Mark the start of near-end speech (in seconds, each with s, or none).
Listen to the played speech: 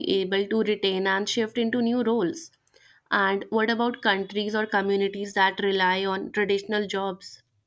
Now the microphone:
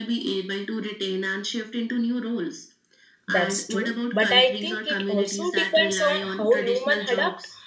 3.3 s